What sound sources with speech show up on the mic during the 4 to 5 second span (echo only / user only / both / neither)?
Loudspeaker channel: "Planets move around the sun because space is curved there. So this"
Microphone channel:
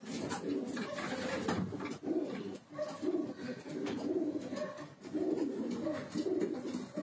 neither